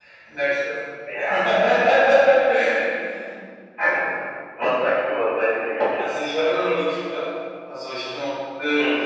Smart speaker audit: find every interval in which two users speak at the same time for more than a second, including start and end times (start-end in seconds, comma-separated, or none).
none